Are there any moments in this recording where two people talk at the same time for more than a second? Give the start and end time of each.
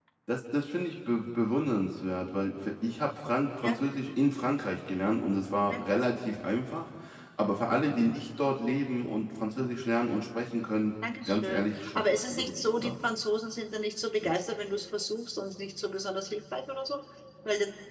11.3-12.9

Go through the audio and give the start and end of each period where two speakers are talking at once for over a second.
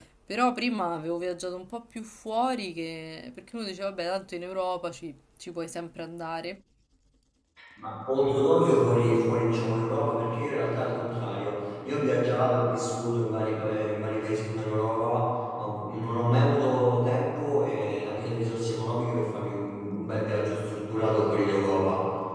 none

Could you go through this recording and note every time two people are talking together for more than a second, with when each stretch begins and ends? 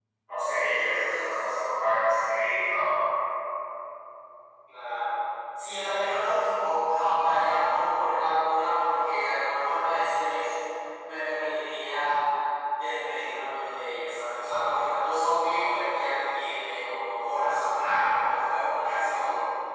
none

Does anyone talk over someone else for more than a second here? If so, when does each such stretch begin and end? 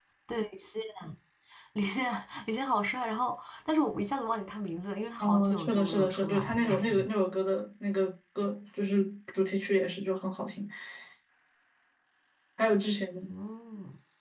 5.2-7.1

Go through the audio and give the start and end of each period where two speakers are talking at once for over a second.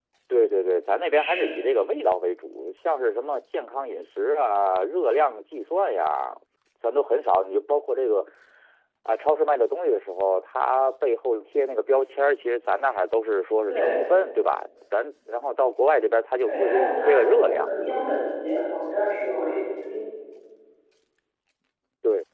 16.4-18.1

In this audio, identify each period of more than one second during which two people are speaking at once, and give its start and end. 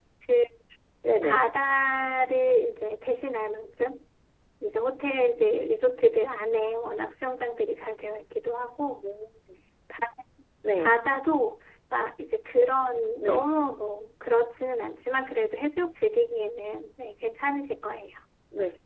none

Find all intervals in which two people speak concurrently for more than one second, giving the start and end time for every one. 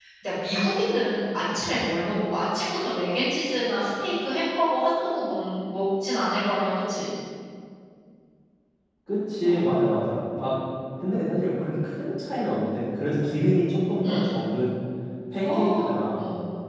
none

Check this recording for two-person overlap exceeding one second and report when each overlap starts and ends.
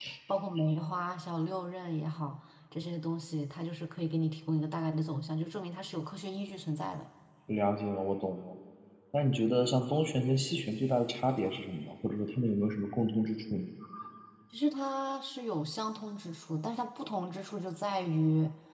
none

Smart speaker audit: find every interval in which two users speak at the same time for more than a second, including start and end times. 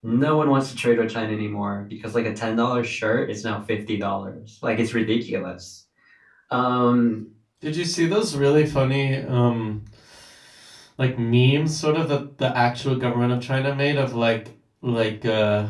none

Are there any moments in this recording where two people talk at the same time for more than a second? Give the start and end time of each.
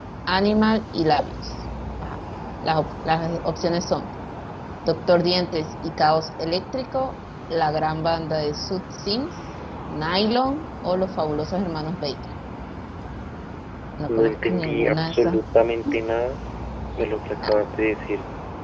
14.1-15.4

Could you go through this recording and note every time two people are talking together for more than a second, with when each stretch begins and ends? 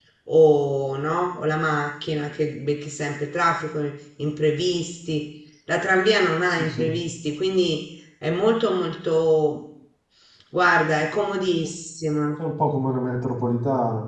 none

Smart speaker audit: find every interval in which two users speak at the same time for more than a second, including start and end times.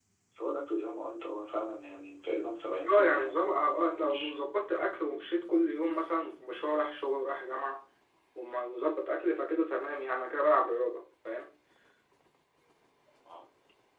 2.9-4.4

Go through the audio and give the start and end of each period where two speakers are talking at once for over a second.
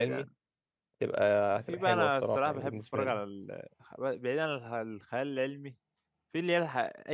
1.7-3.2

